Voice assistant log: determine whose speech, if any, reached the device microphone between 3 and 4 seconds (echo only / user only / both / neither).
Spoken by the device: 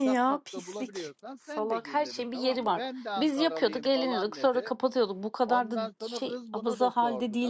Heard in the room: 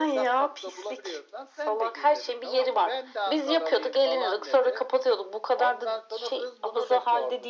echo only